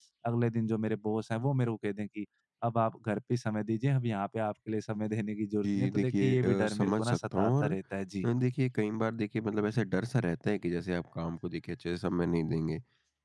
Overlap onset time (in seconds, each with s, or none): 5.6 s